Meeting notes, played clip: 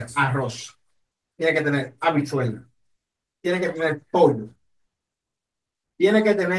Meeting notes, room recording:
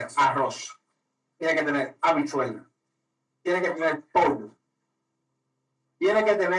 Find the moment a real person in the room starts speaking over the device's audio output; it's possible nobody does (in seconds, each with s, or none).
none